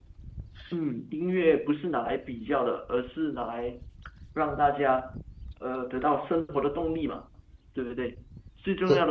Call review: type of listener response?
listening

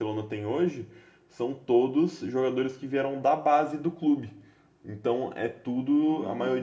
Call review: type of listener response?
listening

